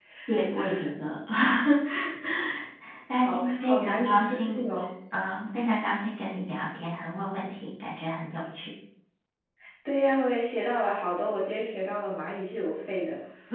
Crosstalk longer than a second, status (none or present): present